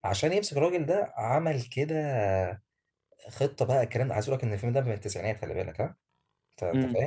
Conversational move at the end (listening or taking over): listening